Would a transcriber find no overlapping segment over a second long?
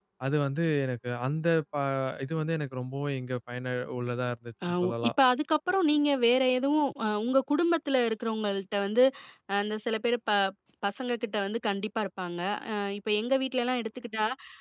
Yes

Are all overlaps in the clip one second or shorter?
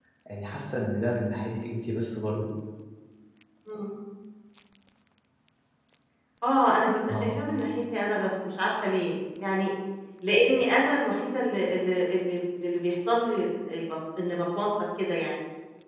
Yes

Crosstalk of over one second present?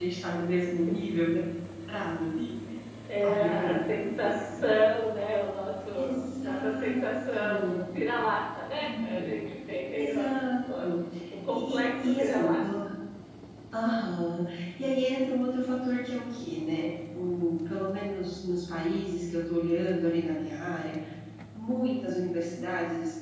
Yes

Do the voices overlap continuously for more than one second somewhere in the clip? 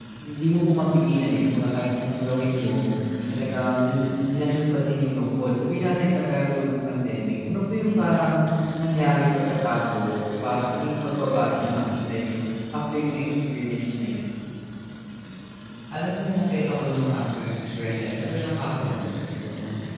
No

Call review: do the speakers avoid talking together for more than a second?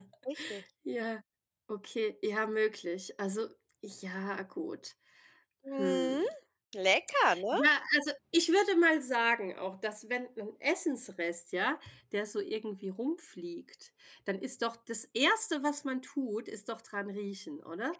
Yes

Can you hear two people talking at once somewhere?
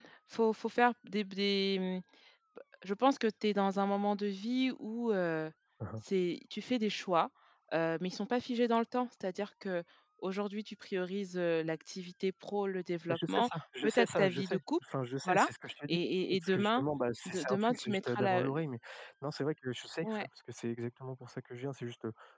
Yes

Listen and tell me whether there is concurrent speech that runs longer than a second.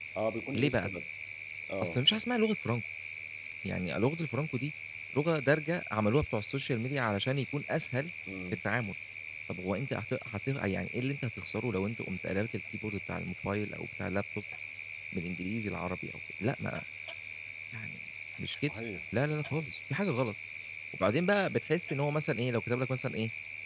No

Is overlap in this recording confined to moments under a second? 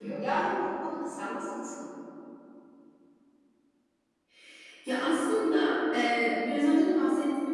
Yes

